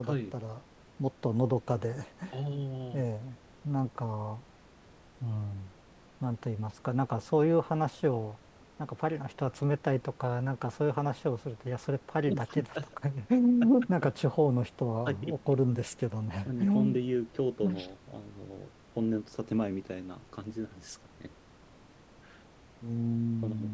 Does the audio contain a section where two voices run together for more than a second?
No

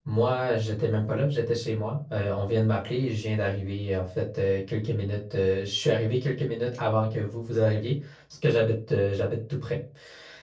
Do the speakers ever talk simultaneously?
No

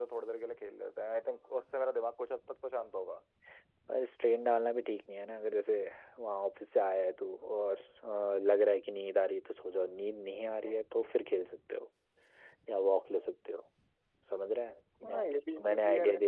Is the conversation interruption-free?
No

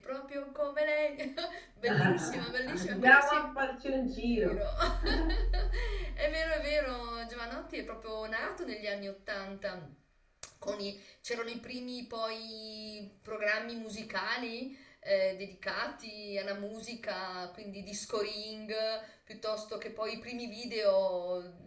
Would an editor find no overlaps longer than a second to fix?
No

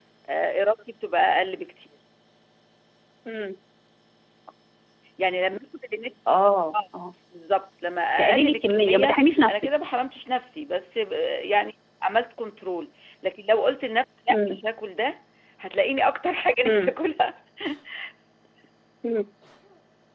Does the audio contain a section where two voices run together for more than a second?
Yes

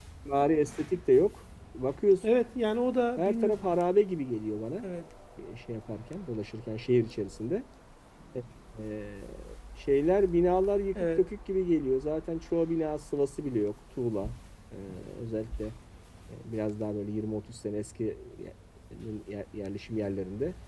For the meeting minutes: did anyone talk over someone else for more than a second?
No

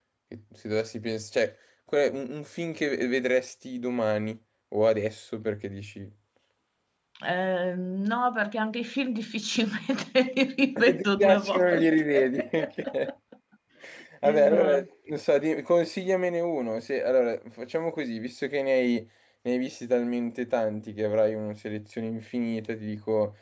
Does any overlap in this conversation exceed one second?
Yes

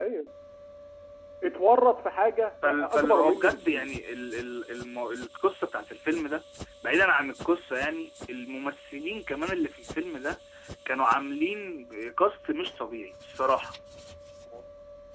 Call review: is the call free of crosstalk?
No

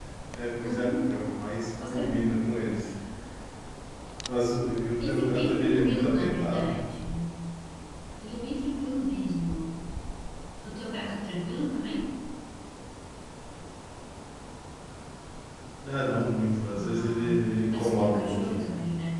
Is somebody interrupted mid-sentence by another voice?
Yes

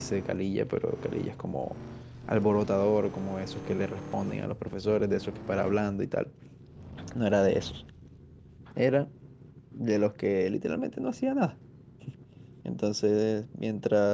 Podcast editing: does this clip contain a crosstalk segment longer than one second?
No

